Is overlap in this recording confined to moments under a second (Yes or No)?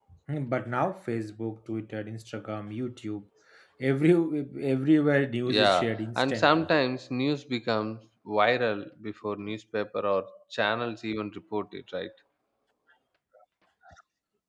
No